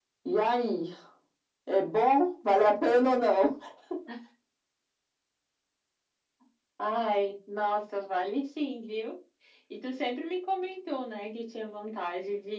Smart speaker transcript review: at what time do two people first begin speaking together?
none

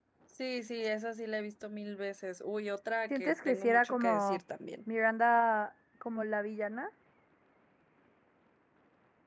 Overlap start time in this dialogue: 3 s

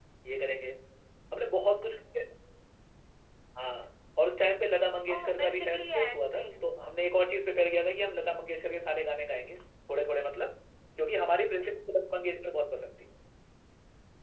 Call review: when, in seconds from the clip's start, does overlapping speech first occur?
5 s

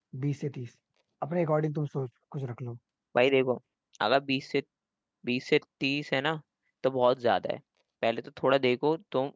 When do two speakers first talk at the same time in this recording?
none

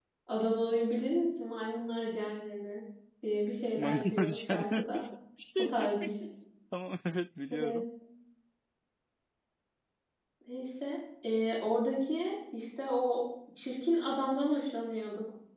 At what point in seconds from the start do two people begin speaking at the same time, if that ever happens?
4 s

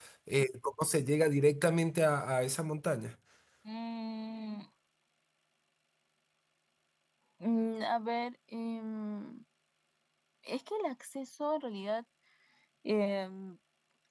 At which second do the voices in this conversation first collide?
none

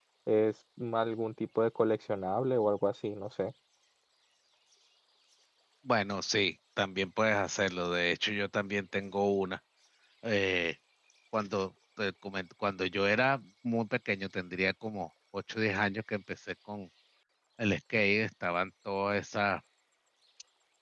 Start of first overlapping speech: none

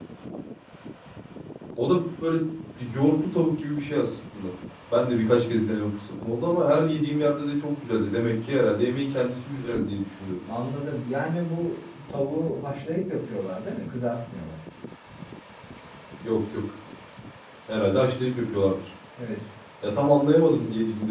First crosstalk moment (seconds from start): none

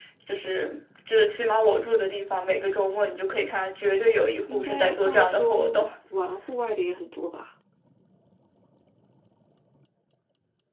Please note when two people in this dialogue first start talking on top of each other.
4 s

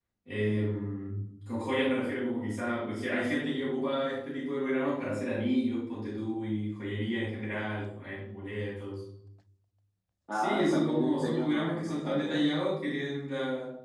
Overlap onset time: 10 s

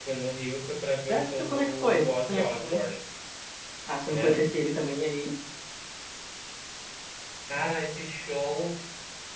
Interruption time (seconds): 1 s

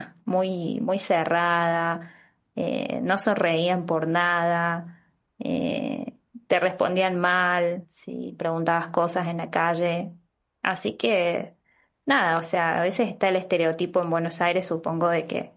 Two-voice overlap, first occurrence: none

